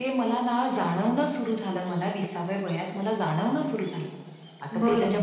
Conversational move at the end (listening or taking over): listening